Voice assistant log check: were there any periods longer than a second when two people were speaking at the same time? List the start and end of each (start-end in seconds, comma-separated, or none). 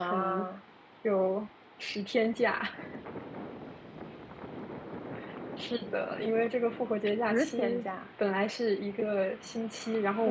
none